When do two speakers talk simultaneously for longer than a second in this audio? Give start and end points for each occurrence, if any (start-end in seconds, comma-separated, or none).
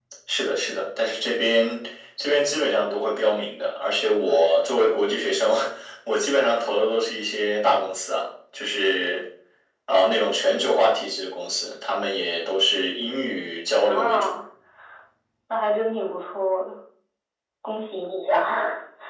none